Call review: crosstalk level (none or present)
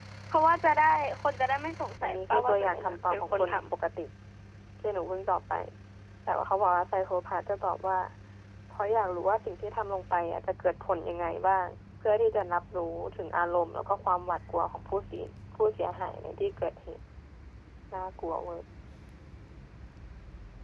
present